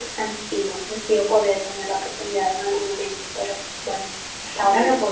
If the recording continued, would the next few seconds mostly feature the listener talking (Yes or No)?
Yes